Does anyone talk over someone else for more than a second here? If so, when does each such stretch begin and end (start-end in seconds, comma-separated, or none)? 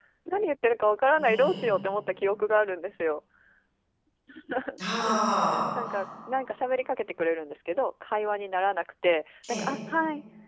none